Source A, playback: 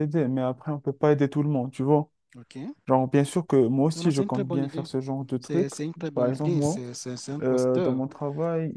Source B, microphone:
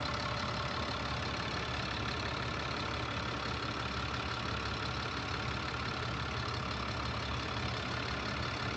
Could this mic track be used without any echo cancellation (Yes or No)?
Yes